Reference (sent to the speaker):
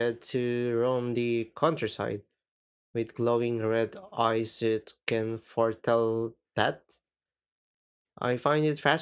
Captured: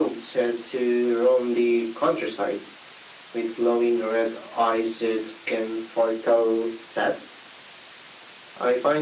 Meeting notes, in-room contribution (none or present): none